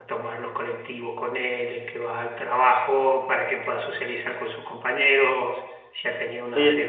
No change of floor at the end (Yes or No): No